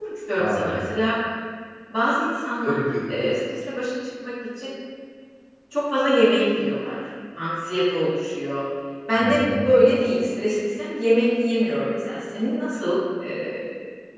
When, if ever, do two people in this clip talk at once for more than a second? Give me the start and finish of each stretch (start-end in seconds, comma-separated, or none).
none